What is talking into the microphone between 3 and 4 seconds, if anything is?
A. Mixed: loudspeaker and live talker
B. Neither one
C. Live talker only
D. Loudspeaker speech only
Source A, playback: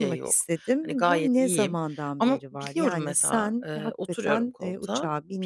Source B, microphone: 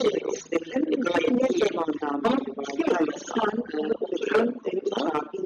D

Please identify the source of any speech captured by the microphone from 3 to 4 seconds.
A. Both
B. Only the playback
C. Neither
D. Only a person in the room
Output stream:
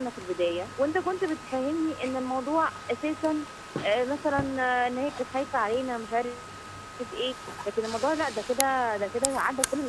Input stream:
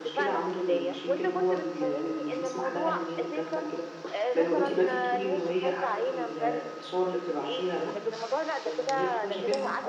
A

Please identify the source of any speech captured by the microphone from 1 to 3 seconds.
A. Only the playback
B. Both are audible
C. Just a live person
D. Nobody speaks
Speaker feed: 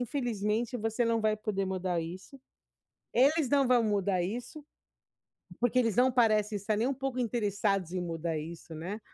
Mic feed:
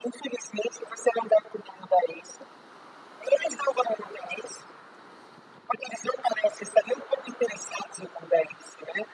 A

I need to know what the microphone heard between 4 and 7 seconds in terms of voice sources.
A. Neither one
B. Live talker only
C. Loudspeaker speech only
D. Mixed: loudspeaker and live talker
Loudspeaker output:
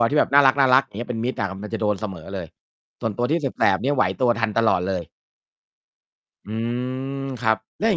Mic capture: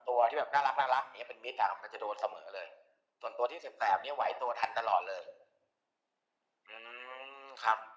C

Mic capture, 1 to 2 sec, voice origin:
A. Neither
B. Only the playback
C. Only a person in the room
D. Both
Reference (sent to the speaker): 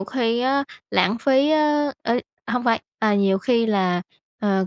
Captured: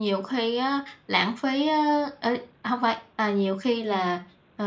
B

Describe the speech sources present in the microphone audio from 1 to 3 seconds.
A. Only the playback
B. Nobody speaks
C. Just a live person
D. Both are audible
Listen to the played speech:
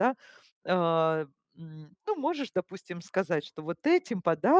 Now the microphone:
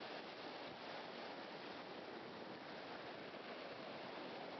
B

